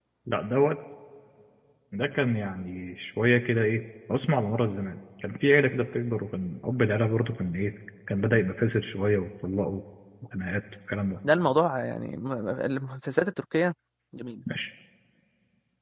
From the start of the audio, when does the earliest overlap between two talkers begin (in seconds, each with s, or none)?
none